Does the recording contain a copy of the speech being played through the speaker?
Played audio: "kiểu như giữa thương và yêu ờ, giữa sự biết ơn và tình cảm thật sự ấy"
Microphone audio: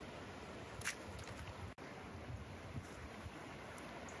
No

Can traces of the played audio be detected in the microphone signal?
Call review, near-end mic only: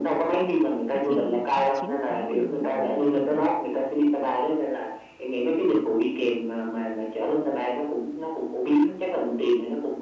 Yes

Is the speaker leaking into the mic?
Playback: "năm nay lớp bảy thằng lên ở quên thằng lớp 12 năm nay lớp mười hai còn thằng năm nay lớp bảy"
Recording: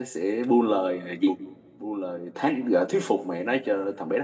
No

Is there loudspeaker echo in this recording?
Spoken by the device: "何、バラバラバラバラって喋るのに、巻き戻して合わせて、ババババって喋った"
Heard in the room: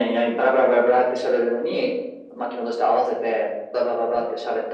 Yes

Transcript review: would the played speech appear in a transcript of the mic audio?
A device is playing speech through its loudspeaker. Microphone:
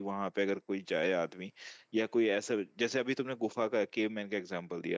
No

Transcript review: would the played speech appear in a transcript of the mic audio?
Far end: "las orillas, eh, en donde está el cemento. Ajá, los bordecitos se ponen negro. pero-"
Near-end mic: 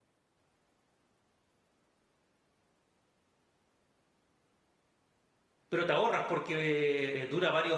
No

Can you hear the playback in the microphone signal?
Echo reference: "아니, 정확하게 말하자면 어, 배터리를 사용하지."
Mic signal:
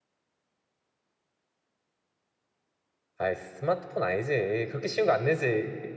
No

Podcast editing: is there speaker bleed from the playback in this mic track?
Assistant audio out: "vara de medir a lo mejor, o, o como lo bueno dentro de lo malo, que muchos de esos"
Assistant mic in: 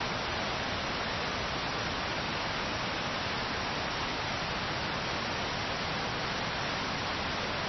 No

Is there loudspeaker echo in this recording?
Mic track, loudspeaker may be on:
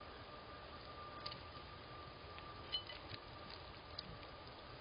No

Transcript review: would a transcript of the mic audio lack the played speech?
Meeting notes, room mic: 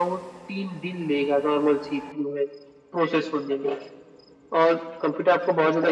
No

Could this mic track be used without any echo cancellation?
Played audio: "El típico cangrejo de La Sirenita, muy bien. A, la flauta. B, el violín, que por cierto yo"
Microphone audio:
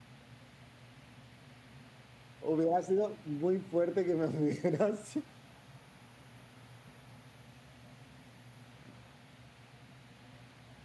Yes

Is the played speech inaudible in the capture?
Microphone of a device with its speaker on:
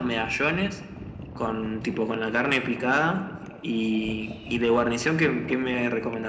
No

